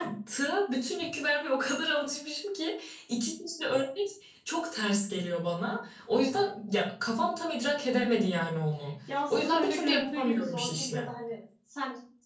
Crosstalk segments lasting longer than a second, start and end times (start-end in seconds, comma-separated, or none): 9.3-11.1